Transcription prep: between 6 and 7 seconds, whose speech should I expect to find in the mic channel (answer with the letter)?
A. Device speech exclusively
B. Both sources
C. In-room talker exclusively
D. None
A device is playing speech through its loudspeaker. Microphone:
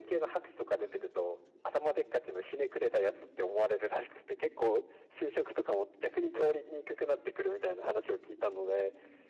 A